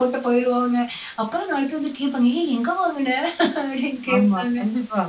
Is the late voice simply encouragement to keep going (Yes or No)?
No